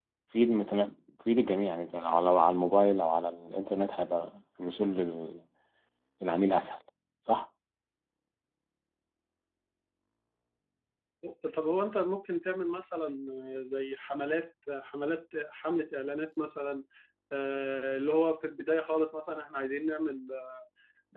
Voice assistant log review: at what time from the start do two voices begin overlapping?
none

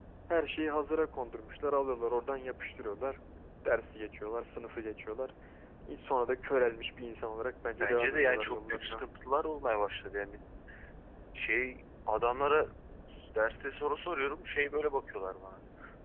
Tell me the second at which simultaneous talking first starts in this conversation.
8 s

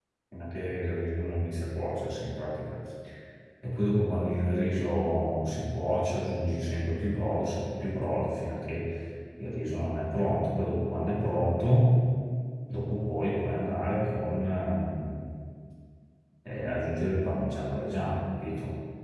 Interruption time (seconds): none

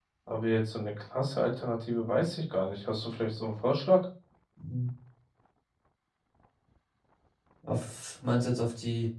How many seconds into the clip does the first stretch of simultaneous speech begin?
none

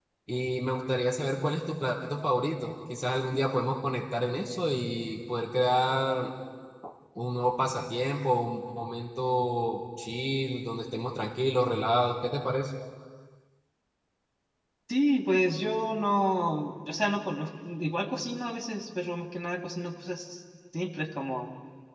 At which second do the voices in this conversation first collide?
none

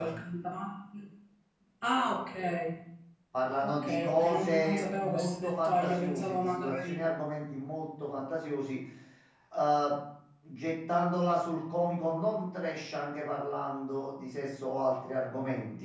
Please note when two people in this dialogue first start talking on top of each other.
4 s

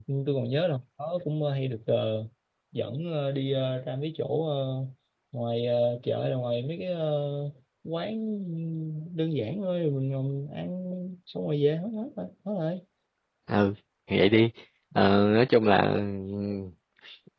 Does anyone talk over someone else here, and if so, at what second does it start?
none

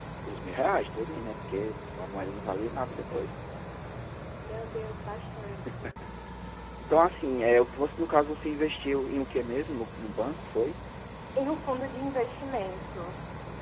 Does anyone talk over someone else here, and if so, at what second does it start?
none

